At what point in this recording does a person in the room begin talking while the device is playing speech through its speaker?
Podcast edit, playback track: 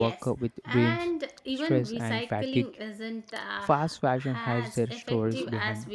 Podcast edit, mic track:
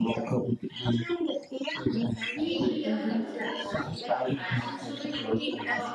2.2 s

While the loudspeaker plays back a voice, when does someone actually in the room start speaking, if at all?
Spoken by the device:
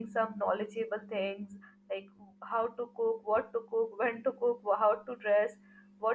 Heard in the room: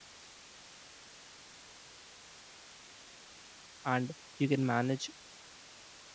3.8 s

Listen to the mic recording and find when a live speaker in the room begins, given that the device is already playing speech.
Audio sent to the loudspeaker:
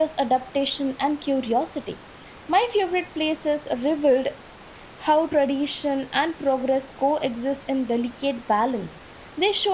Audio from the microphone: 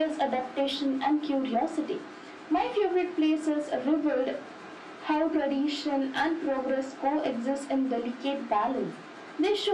none

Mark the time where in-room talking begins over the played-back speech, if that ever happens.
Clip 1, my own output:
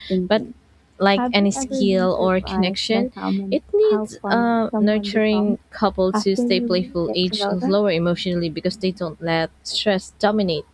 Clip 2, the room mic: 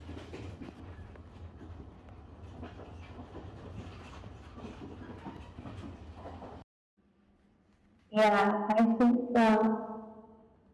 8.1 s

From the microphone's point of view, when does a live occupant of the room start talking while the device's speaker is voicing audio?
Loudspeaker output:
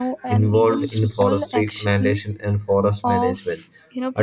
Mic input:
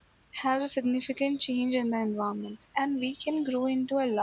0.4 s

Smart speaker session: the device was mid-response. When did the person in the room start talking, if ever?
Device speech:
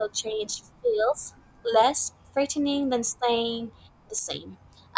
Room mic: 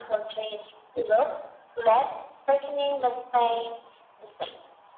none

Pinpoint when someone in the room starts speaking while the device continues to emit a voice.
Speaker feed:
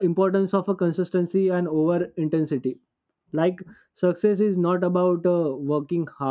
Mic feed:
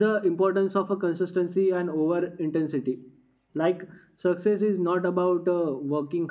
none

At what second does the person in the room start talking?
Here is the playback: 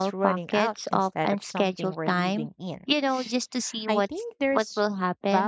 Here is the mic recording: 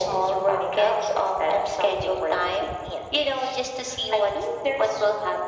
none

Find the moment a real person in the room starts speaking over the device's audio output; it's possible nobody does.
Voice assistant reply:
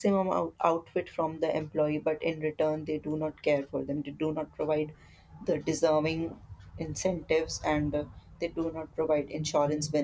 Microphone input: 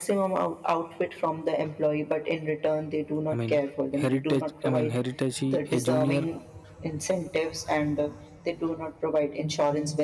3.3 s

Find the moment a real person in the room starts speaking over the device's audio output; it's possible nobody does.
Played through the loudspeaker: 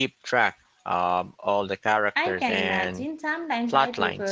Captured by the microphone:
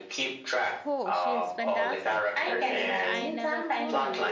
0.8 s

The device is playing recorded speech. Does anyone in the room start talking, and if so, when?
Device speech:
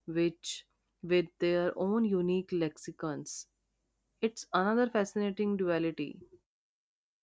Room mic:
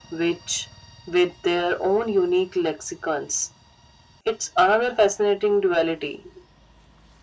none

